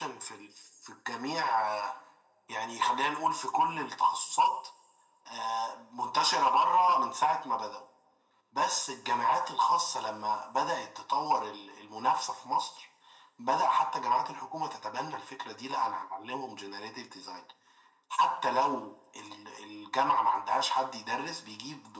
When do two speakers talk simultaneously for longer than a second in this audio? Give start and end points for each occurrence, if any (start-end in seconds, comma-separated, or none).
none